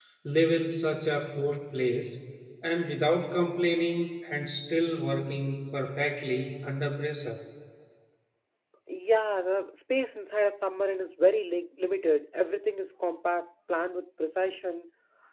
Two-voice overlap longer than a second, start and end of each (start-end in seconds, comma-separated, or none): none